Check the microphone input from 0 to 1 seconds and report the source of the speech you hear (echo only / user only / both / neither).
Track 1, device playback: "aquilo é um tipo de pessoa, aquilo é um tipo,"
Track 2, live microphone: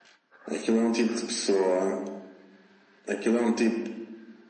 echo only